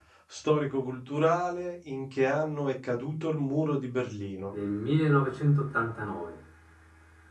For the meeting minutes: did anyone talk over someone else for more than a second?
No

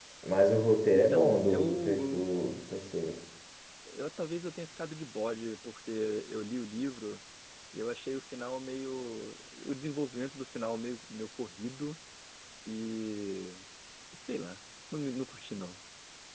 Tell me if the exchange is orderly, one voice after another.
No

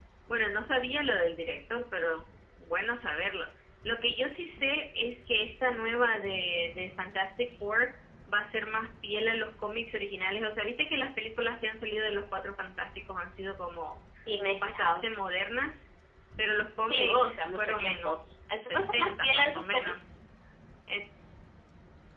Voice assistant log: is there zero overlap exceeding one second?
No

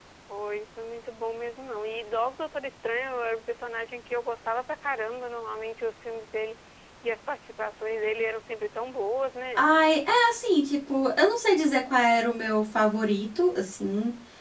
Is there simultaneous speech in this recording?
No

